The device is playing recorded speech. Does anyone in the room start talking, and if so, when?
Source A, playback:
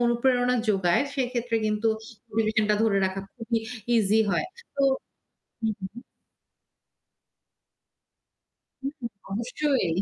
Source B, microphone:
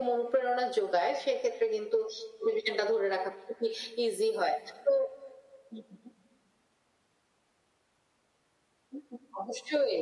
none

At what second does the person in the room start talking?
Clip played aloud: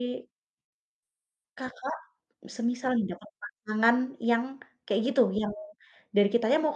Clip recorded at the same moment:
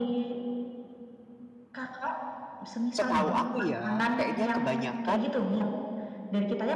2.9 s

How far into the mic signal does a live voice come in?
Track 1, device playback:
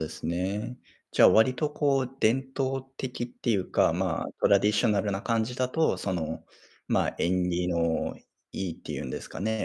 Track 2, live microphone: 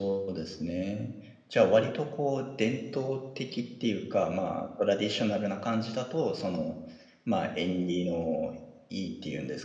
none

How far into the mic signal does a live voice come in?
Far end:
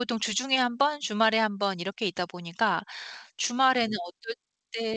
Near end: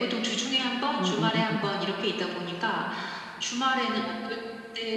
0.9 s

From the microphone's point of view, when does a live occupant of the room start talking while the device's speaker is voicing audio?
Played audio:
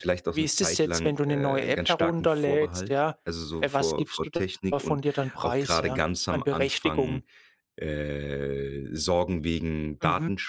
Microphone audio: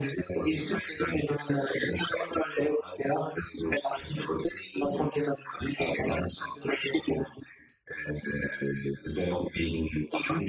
none

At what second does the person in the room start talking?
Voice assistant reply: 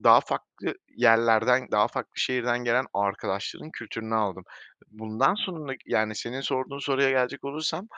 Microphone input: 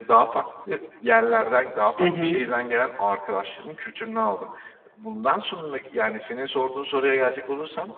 2.0 s

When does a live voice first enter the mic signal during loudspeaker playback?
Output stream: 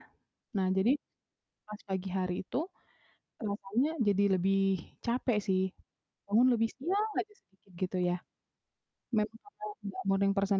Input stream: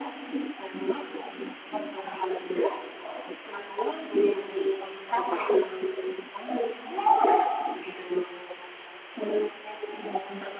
5.2 s

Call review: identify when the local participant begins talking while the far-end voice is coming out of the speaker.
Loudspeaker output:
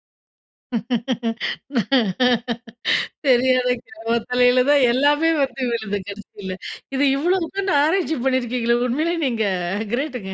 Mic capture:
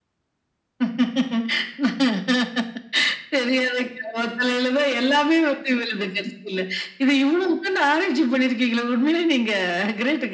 none

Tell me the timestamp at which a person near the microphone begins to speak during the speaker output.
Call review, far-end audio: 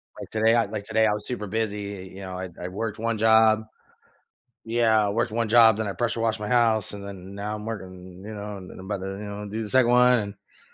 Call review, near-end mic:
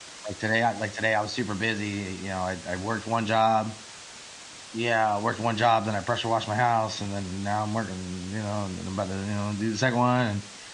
none

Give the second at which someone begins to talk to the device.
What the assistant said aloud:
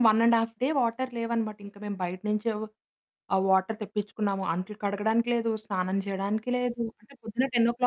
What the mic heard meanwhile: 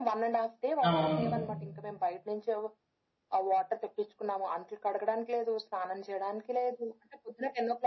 0.9 s

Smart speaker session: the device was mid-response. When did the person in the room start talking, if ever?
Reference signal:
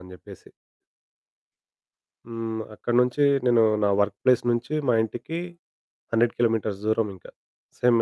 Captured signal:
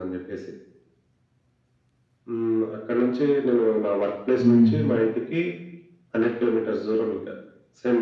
4.4 s

